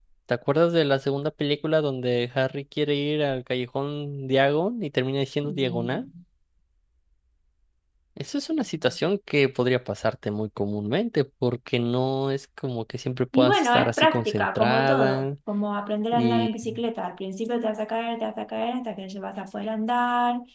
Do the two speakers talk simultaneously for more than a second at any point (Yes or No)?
Yes